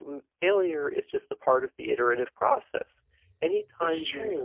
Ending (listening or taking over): listening